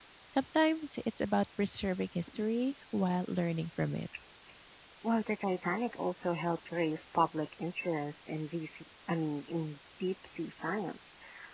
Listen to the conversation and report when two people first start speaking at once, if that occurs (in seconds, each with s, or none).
none